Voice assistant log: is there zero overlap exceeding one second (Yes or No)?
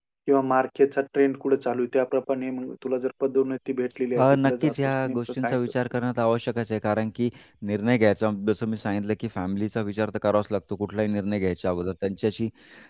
No